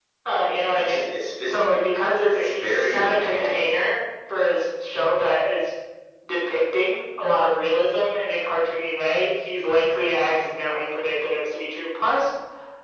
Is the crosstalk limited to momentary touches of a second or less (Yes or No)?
No